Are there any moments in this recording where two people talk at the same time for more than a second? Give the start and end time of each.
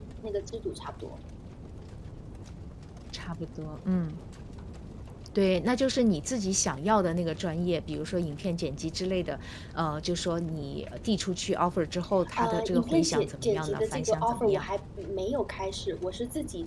12.4-14.6

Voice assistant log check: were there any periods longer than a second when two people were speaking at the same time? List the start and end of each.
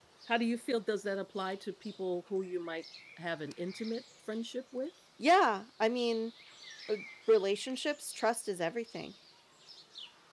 none

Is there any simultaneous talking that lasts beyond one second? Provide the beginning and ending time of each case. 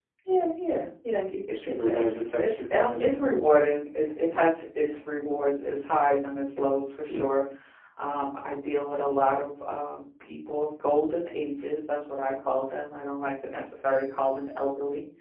1.5-3.2

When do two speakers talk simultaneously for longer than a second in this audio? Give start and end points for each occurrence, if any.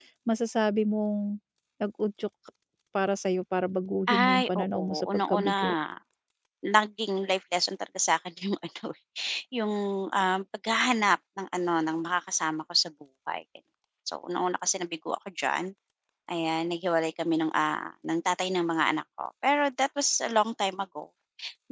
4.1-5.7

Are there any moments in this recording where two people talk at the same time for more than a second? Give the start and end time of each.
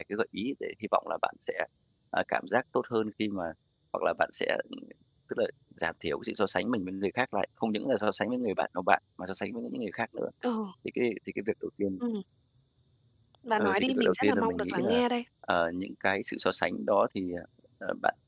13.6-15.0

